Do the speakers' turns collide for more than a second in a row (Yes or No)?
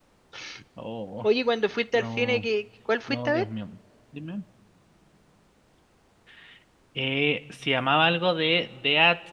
No